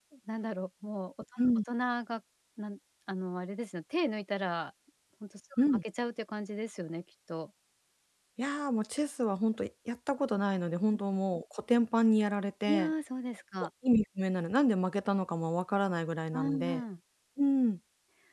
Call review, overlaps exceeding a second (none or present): none